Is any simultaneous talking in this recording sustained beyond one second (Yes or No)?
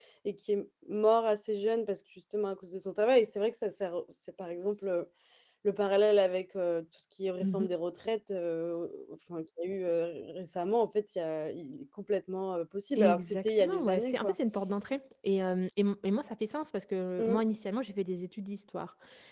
Yes